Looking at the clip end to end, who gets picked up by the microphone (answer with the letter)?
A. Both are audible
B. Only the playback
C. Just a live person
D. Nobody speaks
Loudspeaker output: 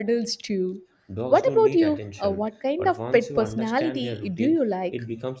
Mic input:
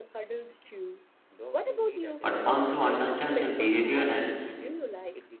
A